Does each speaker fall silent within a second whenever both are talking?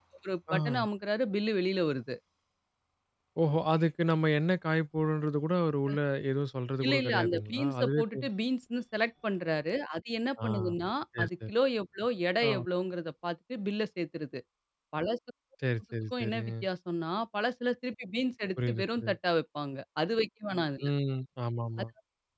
No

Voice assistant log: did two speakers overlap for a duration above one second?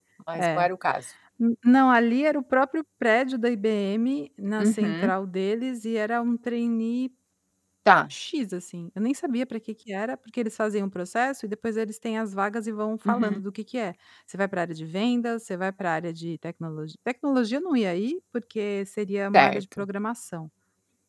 No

